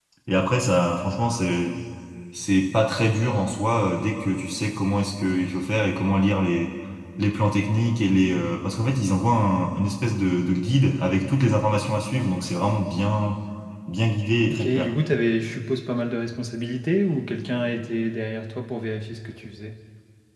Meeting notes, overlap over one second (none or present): none